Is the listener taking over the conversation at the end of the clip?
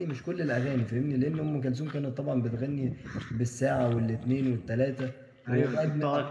Yes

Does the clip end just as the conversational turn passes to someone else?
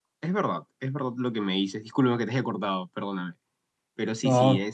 No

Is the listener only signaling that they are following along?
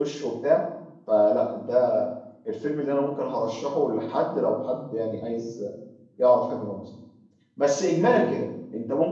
Yes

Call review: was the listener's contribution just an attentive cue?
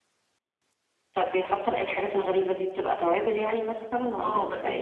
No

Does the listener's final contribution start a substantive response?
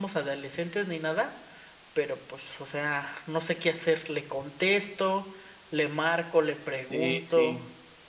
Yes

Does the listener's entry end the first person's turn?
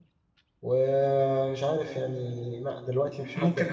Yes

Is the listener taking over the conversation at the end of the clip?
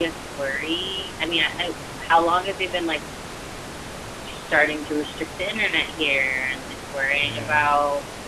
No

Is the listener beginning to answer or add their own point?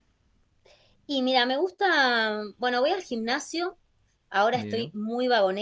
No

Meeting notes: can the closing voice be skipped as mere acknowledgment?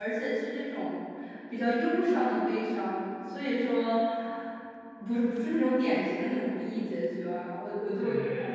No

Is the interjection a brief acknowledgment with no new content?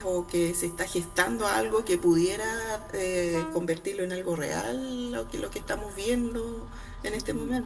No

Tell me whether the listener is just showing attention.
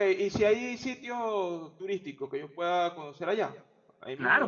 No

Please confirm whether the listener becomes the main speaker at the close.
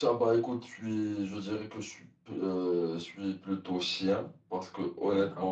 No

